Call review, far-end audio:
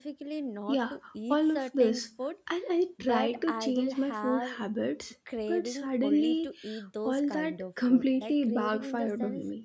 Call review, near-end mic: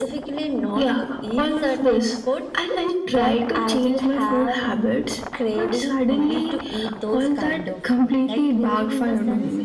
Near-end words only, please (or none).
none